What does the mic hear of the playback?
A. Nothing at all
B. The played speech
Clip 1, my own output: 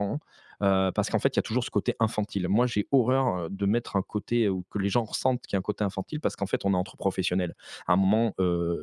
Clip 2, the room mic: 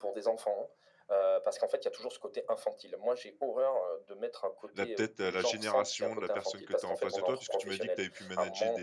B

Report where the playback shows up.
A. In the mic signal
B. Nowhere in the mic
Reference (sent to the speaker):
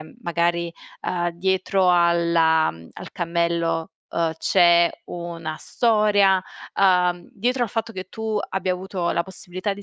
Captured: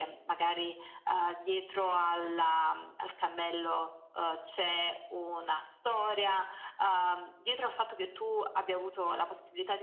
A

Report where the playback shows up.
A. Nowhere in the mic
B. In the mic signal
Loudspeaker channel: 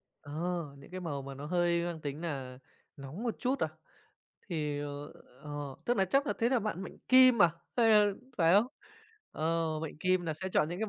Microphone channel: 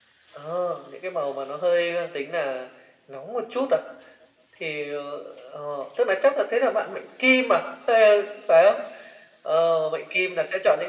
B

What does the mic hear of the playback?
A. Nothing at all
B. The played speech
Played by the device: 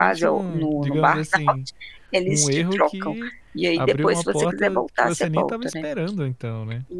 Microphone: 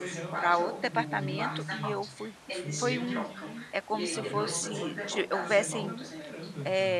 B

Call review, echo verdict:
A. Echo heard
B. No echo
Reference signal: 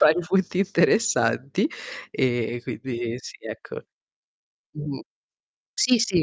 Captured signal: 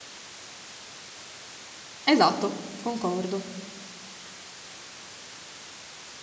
B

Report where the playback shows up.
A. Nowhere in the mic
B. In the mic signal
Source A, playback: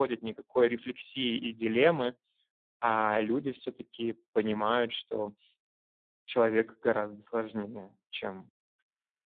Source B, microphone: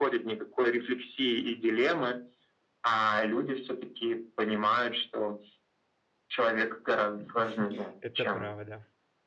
B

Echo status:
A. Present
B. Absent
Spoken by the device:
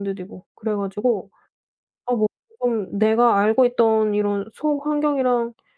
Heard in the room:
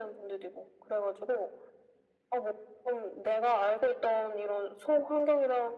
A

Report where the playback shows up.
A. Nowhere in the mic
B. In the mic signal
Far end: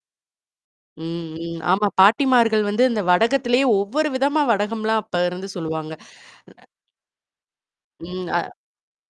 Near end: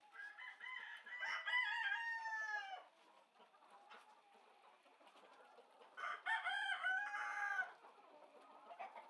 A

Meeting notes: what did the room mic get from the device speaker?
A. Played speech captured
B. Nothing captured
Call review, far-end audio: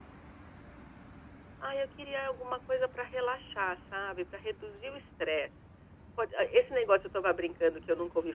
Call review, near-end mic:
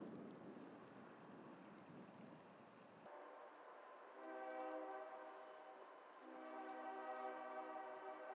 B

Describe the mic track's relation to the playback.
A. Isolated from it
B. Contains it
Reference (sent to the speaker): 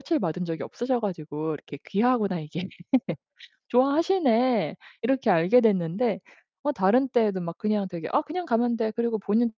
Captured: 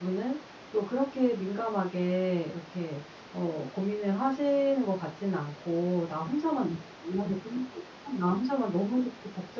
A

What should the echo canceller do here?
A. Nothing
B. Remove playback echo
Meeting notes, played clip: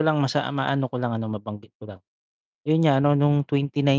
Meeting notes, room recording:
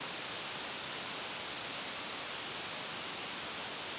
A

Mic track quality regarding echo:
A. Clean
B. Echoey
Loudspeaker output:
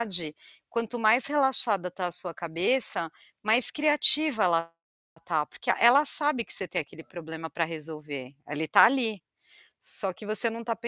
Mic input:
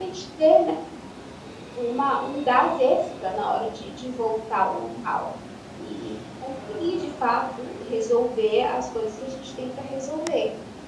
A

